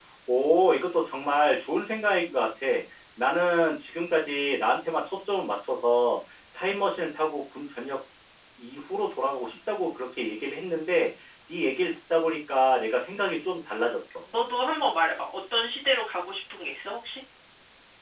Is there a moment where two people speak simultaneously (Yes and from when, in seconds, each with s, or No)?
No